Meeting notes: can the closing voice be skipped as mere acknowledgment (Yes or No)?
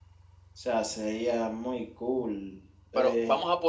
No